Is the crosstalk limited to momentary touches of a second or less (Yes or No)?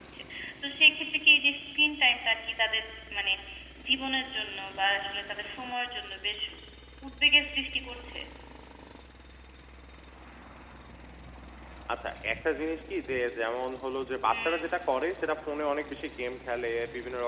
Yes